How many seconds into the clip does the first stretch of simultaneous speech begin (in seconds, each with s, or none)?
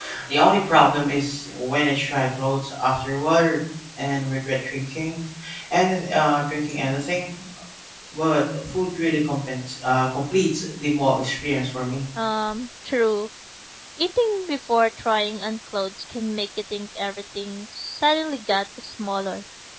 none